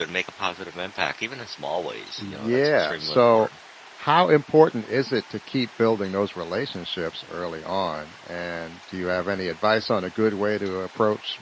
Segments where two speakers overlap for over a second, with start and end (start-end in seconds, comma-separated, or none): 2.2-3.5